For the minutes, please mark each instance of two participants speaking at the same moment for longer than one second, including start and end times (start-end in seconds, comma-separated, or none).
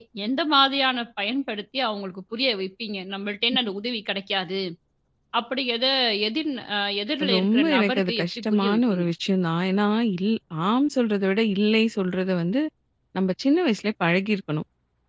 7.4-9.1